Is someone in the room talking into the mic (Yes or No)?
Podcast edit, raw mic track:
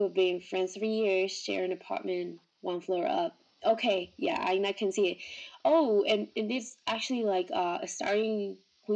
No